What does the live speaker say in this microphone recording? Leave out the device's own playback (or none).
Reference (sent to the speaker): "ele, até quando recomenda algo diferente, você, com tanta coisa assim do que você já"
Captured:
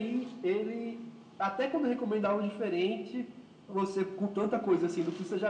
none